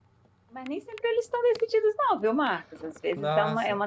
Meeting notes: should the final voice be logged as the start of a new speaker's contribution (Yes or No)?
No